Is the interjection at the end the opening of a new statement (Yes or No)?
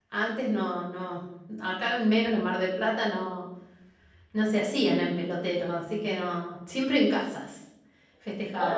Yes